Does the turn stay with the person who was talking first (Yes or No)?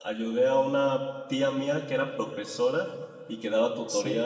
Yes